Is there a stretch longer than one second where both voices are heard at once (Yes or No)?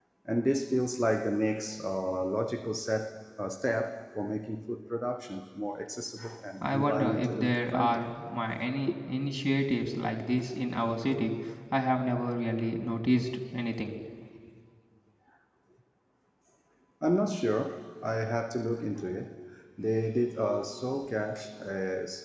Yes